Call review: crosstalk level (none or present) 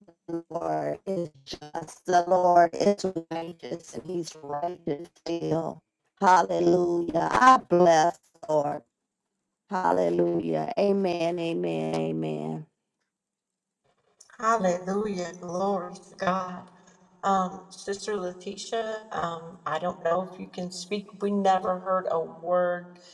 none